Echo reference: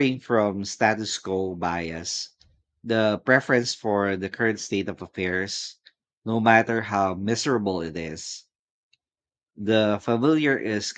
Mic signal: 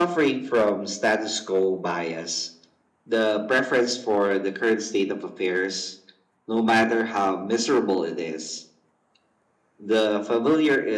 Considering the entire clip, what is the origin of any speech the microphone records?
echo only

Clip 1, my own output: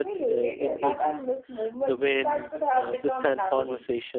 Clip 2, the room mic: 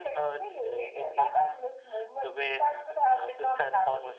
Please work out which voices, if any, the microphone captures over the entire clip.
echo only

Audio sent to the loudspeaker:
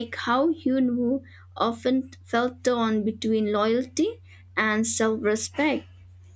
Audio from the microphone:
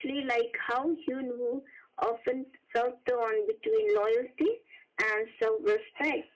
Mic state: echo only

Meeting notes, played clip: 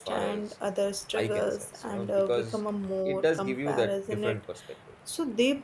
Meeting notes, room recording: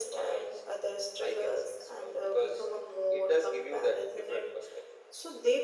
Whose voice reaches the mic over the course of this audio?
echo only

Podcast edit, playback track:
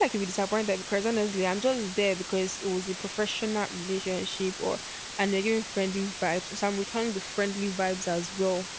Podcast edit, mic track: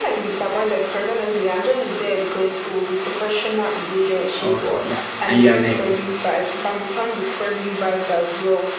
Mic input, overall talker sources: both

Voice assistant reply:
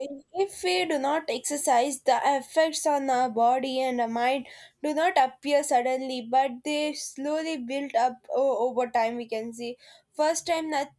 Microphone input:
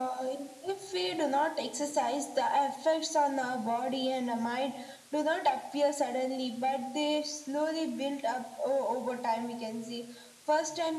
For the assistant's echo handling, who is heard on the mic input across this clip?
echo only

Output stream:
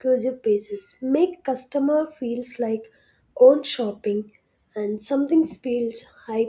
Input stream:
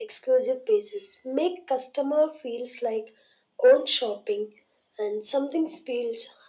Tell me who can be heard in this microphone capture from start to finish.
echo only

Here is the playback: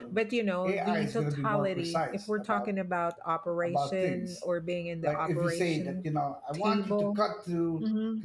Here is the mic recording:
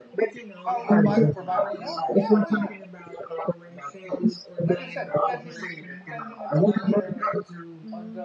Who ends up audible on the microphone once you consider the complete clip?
both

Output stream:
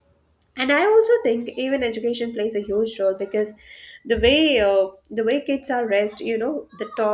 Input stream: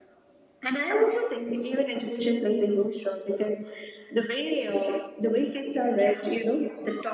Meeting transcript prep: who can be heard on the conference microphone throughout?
echo only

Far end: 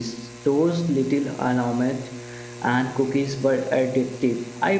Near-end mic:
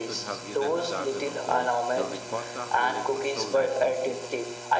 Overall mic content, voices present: both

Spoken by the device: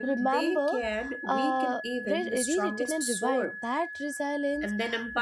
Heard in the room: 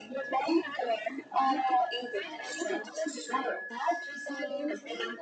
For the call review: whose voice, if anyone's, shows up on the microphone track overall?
both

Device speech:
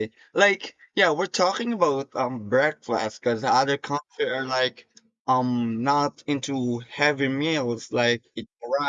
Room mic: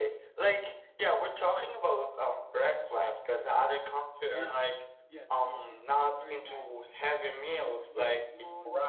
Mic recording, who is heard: both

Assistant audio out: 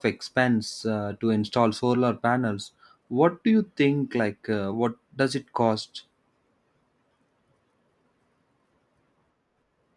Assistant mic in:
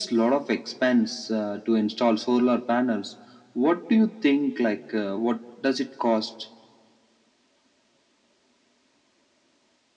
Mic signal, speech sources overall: echo only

